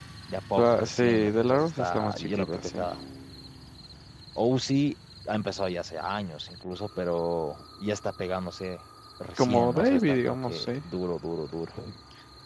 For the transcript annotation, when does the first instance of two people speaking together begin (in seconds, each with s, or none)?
0.6 s